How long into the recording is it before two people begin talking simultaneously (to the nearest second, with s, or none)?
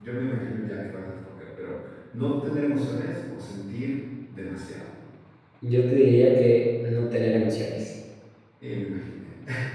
none